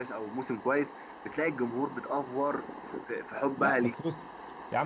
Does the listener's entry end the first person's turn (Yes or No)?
Yes